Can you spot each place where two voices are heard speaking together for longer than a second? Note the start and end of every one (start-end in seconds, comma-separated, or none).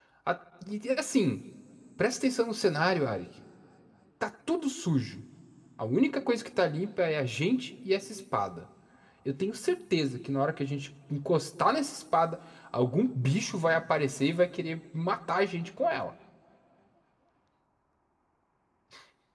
none